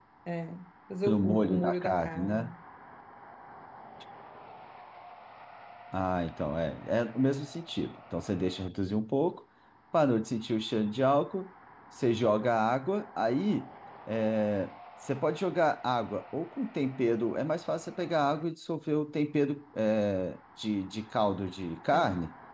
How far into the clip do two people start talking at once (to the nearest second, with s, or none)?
1 s